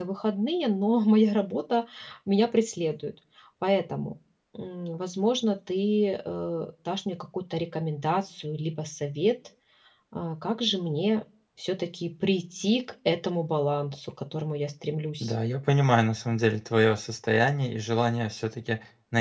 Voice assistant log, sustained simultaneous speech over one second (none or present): none